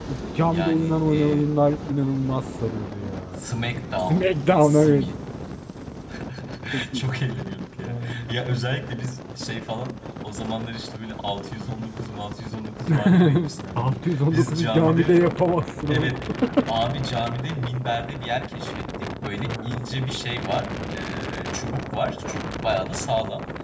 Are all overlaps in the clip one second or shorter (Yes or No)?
No